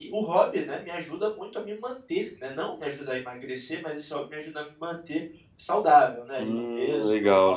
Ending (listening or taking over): taking over